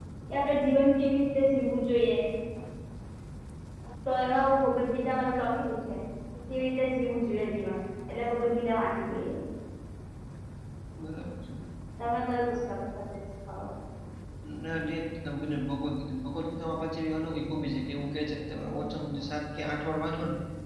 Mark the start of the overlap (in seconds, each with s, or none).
none